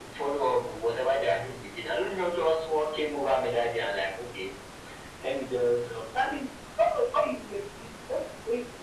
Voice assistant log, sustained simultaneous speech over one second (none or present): none